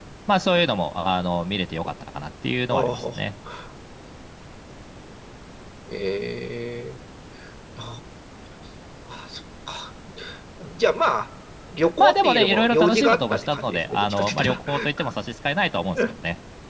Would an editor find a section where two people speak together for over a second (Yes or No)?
Yes